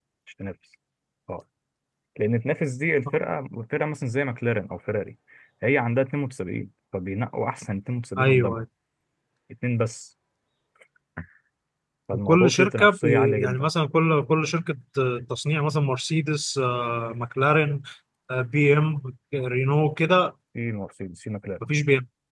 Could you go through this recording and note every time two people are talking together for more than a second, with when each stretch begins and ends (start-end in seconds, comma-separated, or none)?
12.1-13.7